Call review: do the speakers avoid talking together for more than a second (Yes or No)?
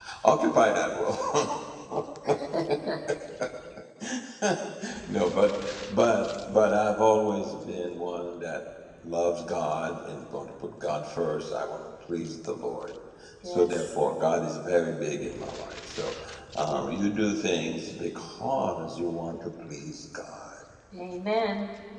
Yes